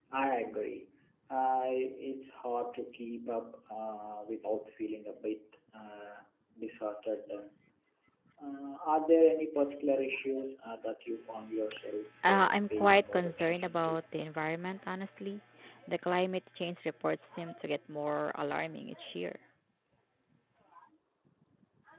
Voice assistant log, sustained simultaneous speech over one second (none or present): present